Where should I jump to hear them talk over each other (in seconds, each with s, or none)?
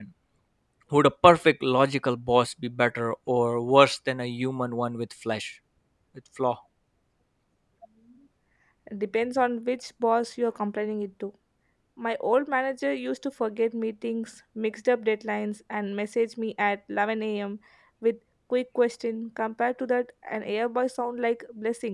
none